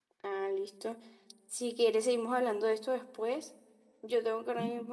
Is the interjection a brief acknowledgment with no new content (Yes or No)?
Yes